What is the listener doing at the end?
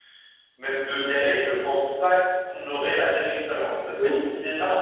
listening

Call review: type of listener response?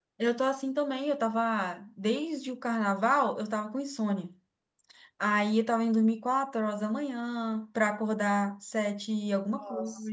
listening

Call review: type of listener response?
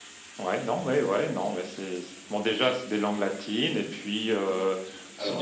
listening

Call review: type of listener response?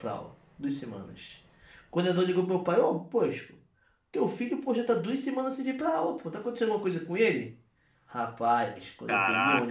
listening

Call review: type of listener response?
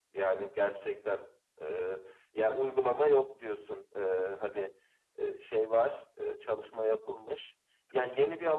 listening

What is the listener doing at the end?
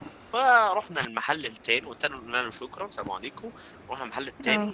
listening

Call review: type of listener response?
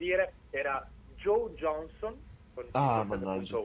taking over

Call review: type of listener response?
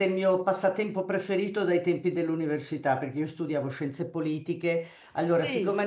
listening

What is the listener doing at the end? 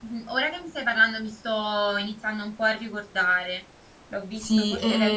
taking over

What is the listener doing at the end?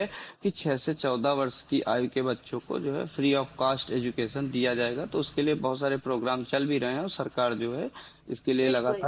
taking over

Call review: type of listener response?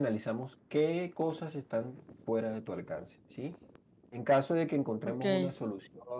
listening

